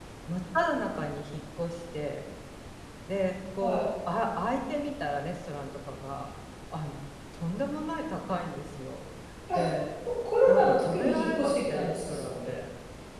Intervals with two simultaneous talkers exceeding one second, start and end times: 10.4-12.5

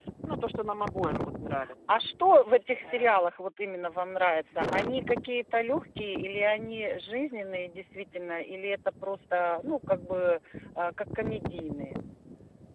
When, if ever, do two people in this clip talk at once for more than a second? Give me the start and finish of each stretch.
none

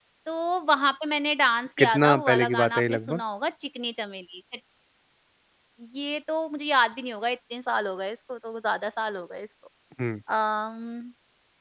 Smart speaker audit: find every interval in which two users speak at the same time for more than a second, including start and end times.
1.8-3.2

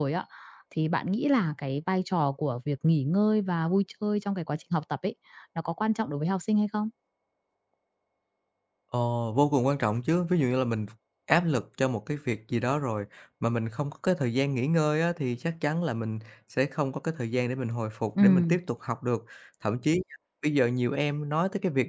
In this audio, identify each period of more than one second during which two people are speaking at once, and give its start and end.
none

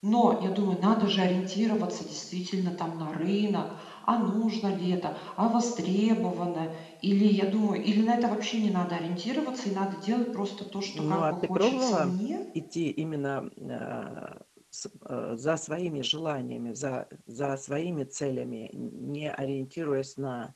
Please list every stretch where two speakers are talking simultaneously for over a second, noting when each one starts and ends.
10.9-12.2

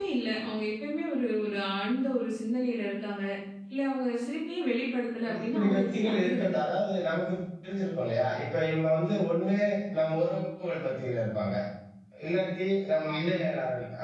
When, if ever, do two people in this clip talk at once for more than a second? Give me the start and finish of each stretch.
5.3-6.6

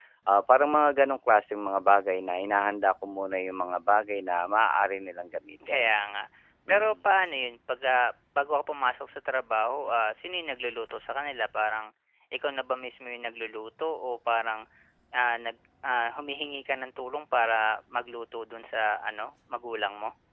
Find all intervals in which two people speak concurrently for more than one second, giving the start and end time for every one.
none

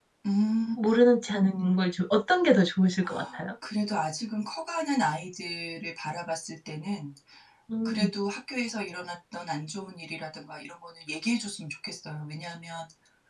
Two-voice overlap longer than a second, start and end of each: none

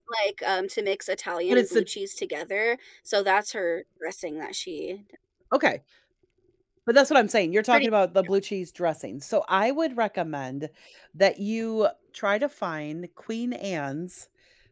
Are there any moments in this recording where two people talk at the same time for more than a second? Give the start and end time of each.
none

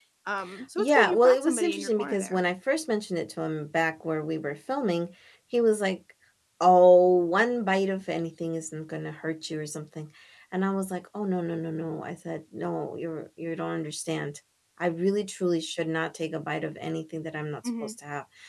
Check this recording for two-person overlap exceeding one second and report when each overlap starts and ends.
0.8-2.4

